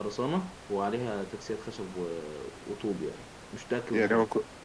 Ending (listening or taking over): taking over